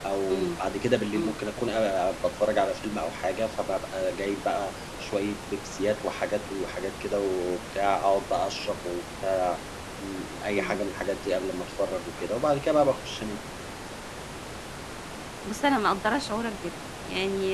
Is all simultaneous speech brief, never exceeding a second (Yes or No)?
Yes